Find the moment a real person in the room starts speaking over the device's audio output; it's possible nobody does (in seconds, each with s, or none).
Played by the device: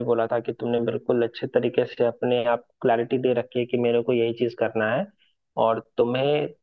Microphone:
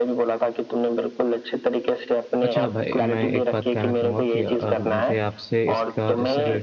2.4 s